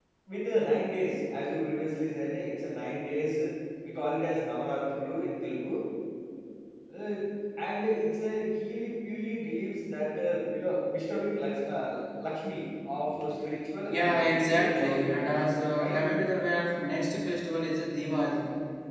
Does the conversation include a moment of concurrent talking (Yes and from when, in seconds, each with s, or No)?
Yes, from 13.9 s